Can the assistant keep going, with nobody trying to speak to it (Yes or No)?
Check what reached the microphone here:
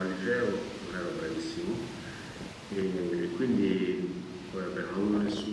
Yes